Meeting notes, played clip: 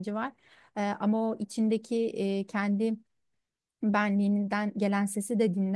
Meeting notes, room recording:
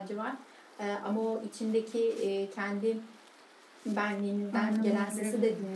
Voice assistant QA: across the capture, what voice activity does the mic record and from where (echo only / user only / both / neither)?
both